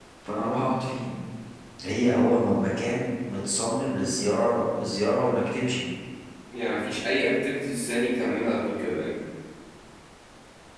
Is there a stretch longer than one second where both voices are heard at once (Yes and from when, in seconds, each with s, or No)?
No